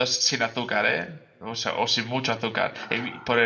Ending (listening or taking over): listening